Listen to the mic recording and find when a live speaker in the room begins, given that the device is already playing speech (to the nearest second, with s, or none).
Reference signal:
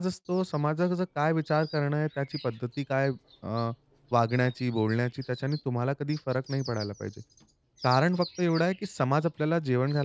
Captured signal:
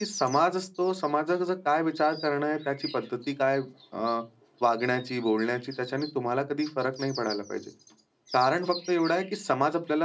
none